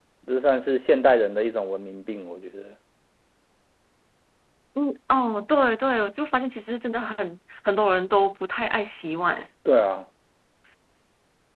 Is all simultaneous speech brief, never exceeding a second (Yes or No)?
Yes